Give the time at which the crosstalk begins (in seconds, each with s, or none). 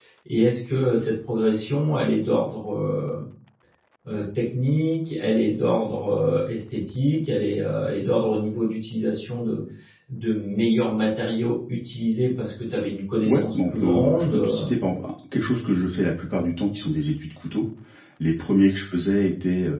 13.2 s